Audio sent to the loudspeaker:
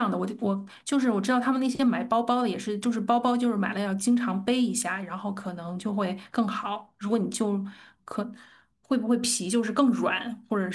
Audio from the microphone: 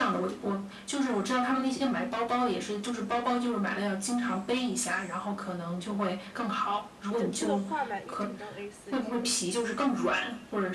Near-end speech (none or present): present